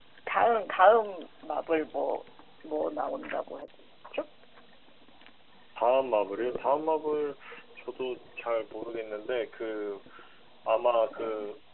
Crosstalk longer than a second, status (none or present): none